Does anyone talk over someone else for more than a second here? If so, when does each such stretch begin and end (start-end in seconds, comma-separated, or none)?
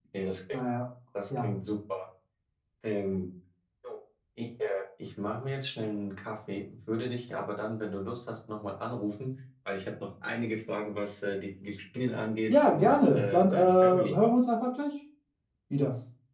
12.5-14.2